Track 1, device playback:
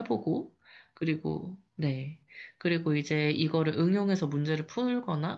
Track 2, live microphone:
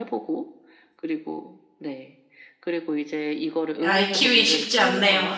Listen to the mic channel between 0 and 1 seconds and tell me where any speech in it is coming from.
echo only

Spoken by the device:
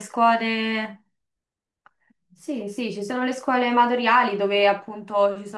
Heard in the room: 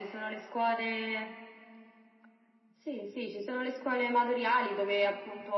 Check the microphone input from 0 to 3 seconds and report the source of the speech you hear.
echo only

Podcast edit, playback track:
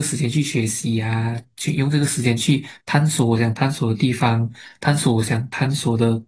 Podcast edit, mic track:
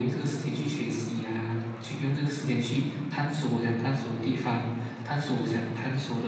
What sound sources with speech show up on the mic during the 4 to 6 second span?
echo only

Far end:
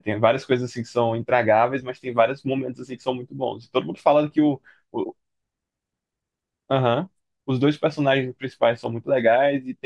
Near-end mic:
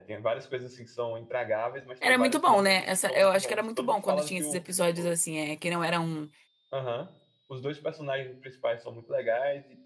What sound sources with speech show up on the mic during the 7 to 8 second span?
echo only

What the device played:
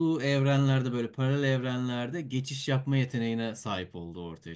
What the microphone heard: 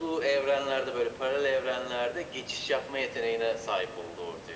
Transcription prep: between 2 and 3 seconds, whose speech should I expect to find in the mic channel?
echo only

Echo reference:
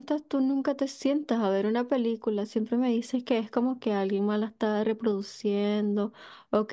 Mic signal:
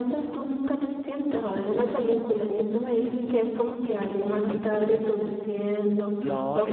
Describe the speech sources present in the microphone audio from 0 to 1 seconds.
echo only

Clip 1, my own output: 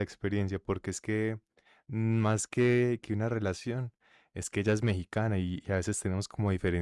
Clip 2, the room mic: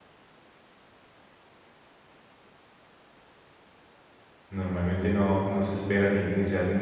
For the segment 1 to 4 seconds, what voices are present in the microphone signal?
neither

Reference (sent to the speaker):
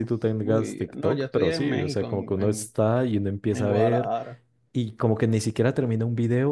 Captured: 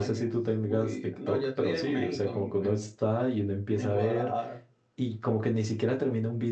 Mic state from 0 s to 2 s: echo only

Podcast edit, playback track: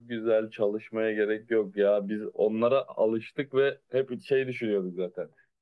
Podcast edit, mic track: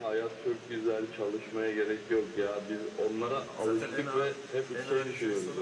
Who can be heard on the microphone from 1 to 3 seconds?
echo only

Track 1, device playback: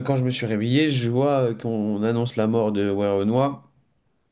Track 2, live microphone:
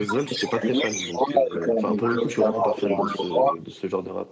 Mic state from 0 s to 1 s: both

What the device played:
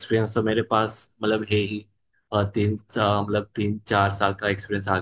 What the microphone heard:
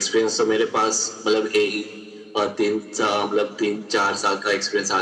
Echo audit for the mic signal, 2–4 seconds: echo only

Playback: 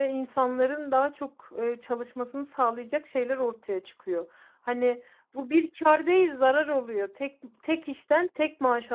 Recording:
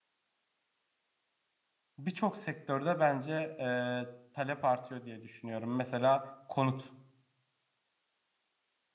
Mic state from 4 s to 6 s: user only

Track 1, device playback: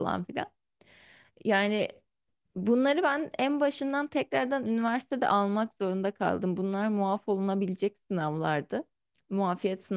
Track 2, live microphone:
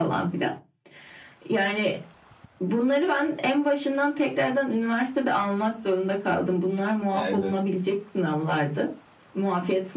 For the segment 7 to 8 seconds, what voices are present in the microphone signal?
both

